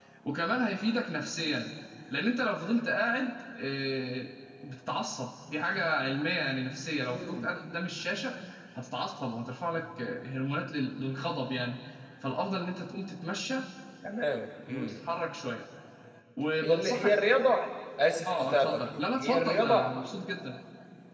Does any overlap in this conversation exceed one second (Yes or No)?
Yes